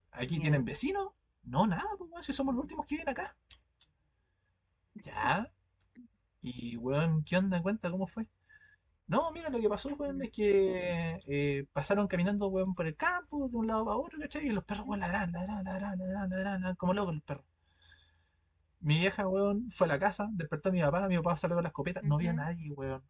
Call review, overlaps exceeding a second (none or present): none